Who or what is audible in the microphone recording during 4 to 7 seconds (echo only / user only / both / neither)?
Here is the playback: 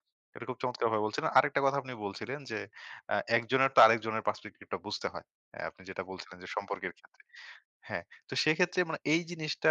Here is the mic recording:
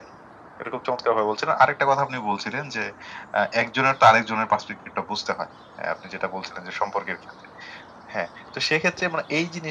echo only